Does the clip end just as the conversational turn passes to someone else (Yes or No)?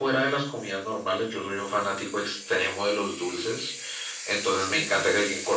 No